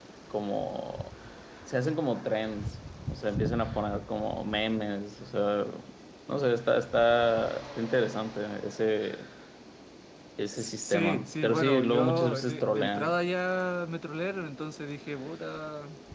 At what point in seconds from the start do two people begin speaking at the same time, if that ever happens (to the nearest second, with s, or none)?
11 s